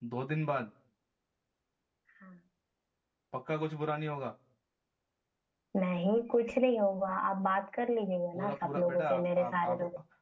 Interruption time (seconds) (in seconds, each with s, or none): 8.3 s